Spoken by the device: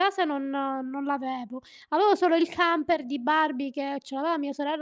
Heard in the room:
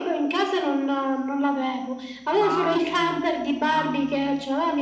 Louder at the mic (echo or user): echo